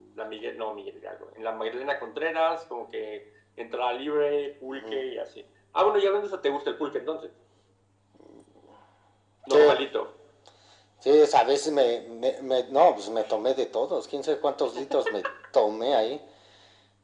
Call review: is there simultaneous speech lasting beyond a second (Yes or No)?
No